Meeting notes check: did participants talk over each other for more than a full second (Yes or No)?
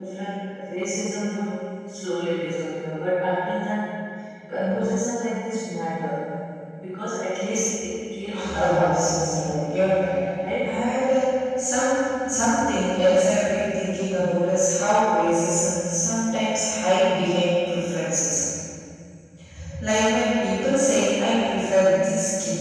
Yes